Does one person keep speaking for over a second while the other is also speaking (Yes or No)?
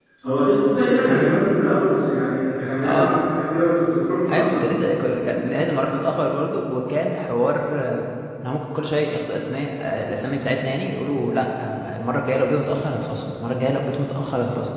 No